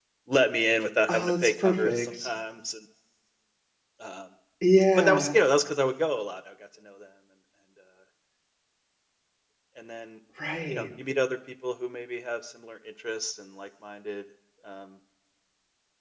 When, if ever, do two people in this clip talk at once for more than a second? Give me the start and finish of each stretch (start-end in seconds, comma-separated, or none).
1.1-2.3